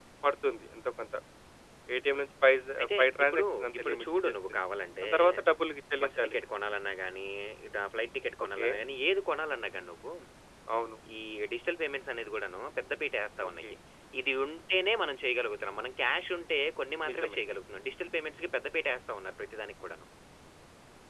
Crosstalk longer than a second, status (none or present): present